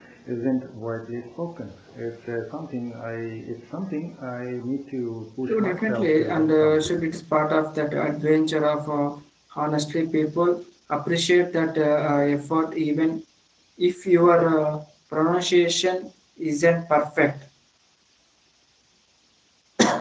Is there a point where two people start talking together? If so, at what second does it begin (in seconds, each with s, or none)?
5.5 s